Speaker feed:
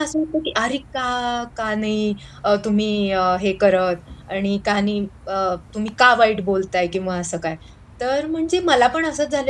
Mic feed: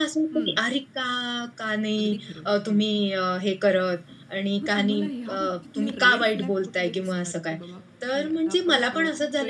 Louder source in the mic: echo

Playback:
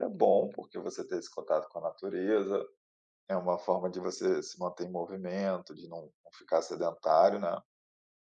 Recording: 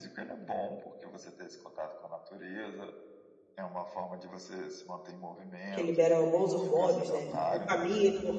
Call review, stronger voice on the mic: user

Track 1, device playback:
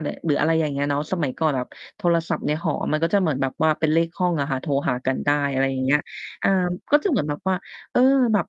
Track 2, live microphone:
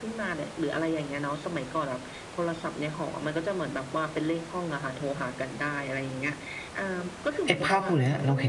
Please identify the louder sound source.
user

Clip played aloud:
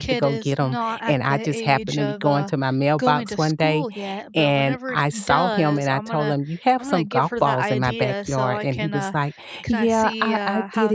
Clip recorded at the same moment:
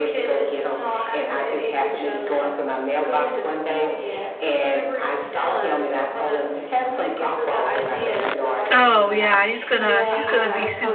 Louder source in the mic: user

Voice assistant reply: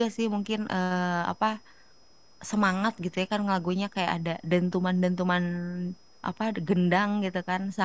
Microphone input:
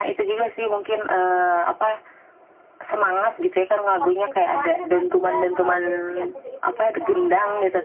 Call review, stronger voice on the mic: echo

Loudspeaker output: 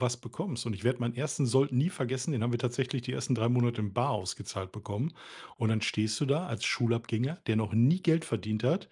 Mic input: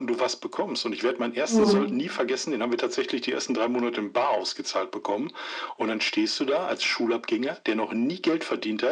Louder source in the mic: user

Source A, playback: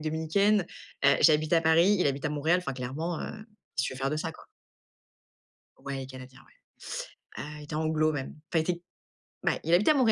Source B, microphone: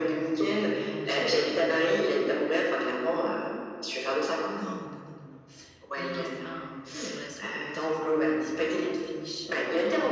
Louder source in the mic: echo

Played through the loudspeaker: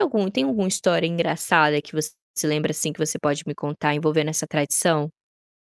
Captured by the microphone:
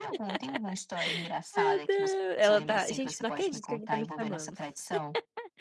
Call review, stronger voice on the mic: user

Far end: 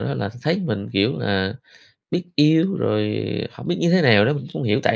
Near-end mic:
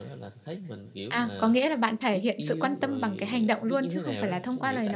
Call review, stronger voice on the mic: user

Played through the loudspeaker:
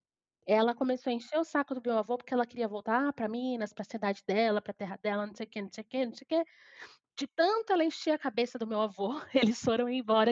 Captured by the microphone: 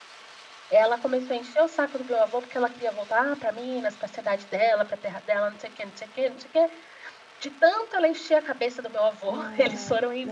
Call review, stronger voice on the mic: echo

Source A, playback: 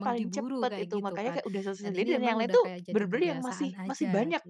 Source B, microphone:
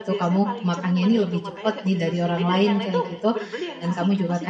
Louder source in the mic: user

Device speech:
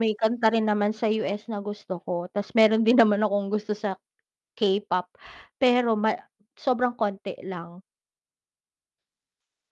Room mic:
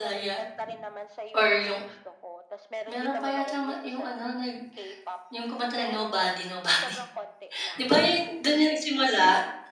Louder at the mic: user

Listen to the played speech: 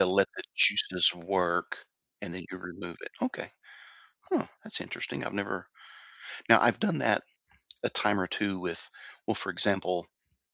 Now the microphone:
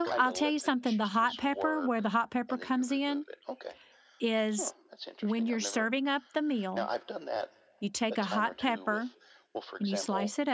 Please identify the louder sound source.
user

